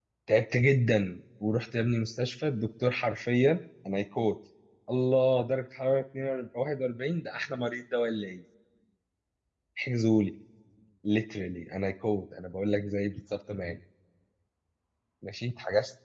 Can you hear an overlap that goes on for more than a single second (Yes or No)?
No